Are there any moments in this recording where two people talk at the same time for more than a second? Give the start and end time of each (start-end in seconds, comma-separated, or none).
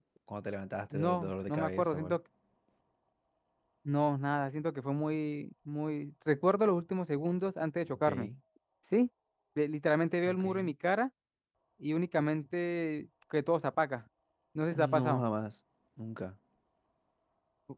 0.9-2.2